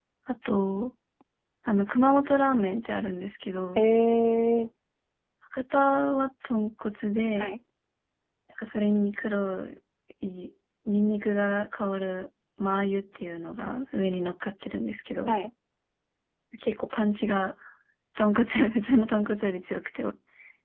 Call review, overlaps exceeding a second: none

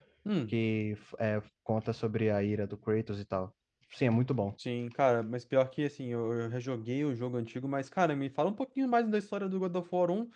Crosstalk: none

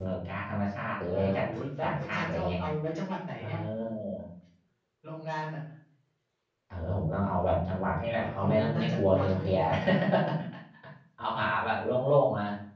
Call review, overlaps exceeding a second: present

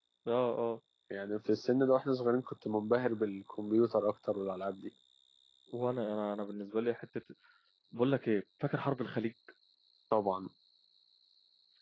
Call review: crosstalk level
none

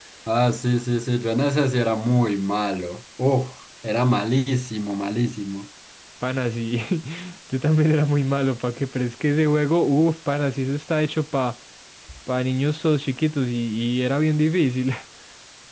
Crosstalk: none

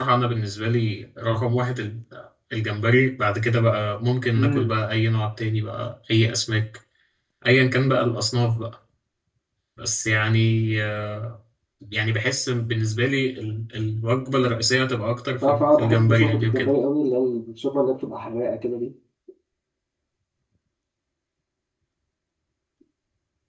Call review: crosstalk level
present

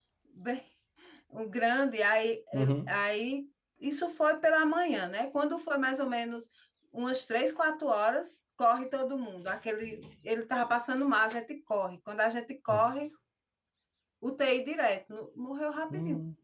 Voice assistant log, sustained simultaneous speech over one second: none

